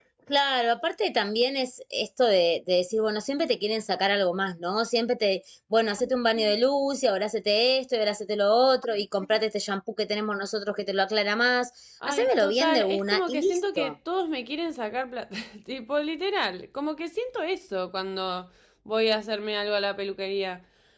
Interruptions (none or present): present